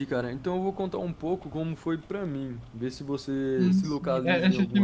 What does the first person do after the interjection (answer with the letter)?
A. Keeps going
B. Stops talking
B